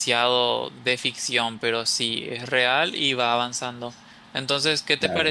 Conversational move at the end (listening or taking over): listening